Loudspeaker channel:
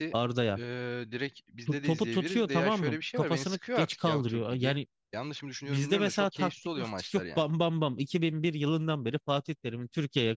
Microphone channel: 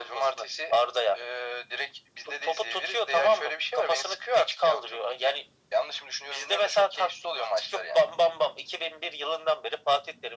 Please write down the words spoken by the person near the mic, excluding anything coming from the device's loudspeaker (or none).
none